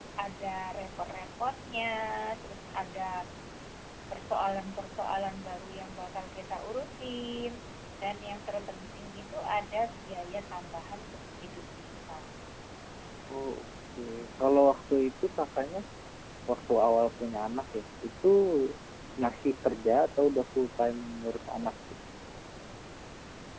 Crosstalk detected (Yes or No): No